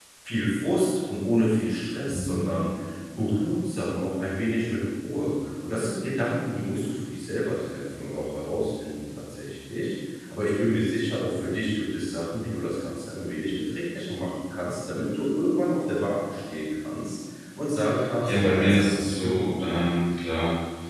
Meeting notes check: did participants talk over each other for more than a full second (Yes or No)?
Yes